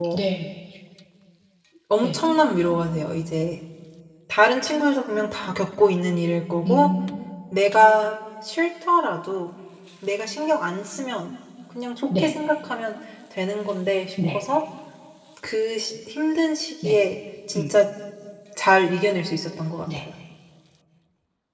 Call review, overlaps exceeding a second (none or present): none